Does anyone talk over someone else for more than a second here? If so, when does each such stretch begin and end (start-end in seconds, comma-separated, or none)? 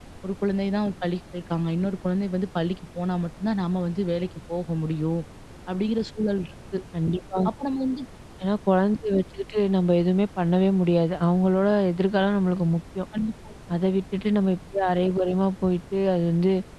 none